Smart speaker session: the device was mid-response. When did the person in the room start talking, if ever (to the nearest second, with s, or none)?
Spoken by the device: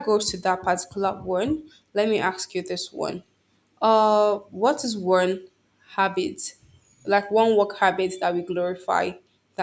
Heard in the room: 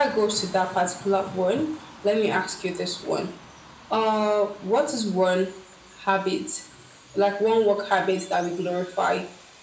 none